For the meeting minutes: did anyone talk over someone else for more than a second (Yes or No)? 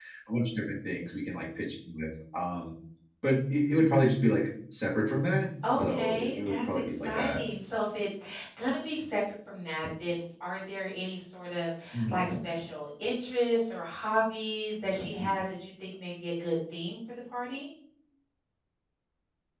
Yes